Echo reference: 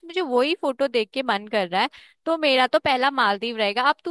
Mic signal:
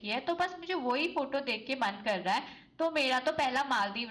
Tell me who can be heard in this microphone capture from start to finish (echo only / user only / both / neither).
echo only